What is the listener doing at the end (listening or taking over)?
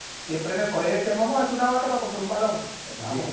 listening